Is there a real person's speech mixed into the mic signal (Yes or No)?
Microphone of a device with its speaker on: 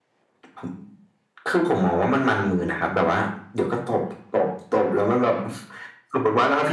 No